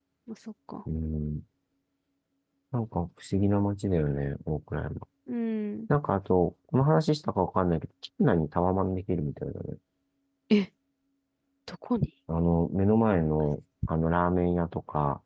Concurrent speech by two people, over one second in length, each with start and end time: none

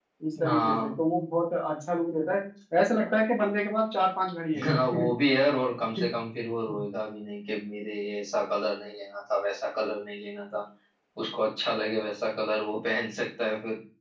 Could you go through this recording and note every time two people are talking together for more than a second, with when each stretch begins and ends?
none

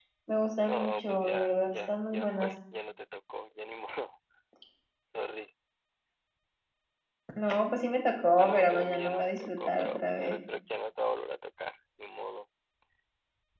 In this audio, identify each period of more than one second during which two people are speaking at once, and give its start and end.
0.6-2.5, 8.4-10.4

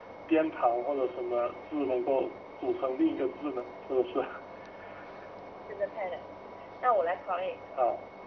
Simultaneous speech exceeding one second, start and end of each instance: none

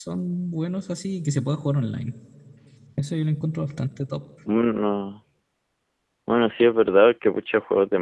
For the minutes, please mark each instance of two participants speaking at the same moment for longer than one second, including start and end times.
none

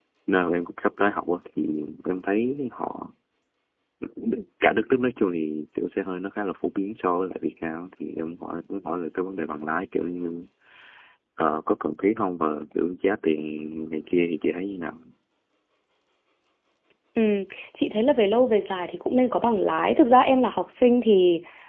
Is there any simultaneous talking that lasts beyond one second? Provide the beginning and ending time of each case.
none

